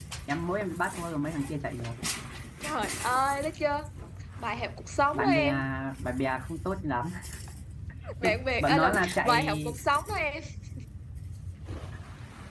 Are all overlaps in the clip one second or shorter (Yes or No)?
No